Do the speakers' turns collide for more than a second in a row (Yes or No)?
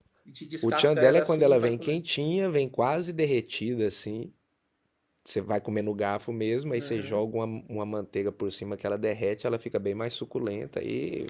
Yes